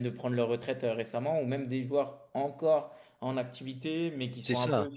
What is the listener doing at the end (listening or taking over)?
listening